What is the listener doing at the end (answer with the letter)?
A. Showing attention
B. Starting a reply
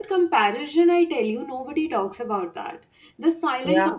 A